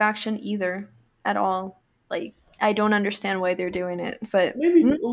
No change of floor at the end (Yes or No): No